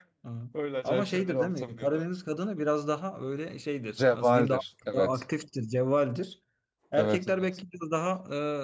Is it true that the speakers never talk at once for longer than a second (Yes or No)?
No